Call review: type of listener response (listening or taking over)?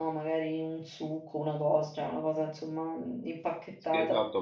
taking over